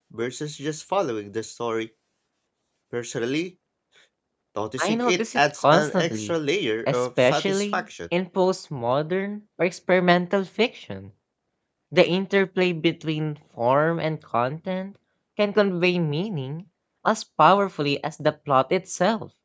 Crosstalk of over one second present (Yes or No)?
Yes